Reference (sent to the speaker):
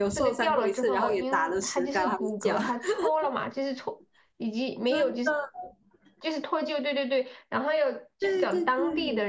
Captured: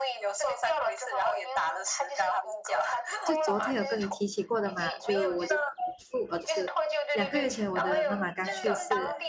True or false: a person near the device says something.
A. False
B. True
B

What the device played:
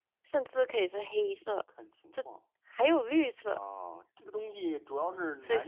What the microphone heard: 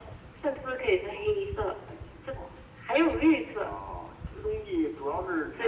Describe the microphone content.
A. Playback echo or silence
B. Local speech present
A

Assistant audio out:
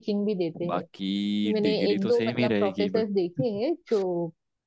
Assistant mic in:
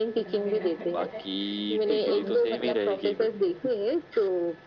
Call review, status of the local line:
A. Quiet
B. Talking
B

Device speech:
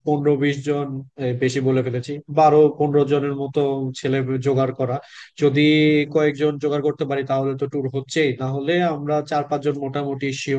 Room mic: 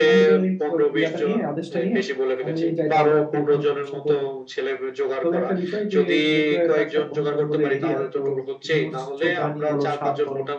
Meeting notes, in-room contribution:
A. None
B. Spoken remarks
B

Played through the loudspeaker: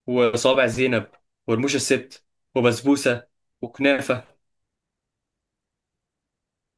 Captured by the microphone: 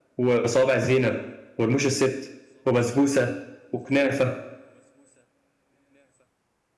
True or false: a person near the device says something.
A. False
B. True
A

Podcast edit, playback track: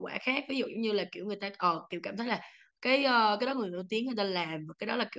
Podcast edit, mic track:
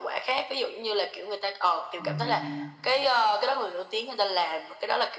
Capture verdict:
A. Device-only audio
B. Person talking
B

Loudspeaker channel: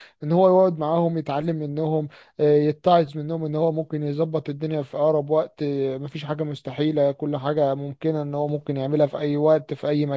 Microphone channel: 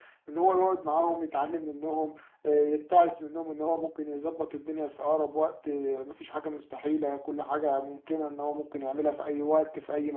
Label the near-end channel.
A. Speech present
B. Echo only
B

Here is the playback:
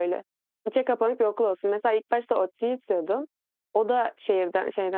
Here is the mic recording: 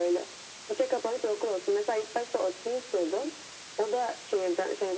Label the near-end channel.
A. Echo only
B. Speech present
A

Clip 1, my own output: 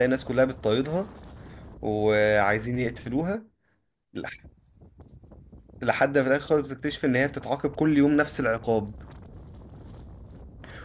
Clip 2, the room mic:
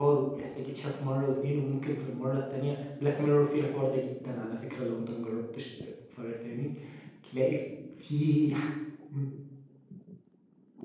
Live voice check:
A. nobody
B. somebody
B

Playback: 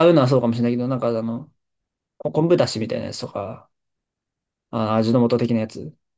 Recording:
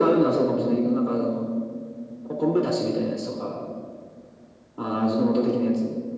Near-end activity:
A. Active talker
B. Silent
B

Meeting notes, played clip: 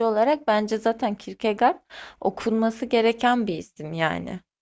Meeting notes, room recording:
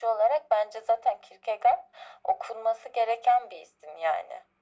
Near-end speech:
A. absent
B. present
A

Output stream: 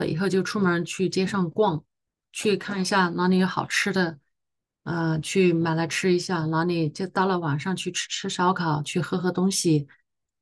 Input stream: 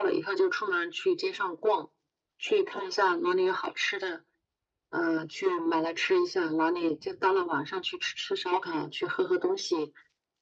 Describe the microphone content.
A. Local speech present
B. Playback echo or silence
B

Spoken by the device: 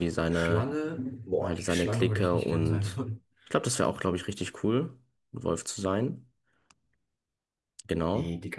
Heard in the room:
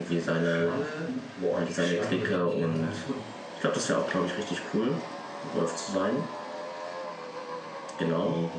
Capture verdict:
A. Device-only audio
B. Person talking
A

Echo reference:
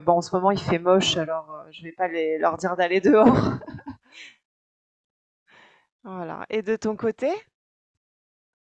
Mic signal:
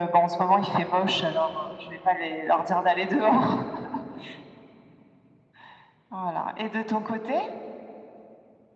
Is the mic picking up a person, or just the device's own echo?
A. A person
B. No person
B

